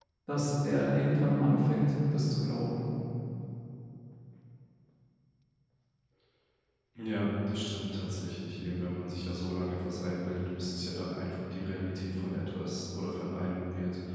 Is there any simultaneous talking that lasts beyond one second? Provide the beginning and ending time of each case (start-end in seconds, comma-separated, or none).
none